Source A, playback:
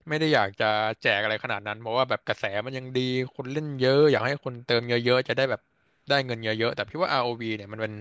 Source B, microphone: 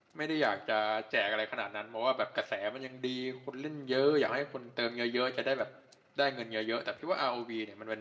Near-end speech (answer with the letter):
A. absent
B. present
A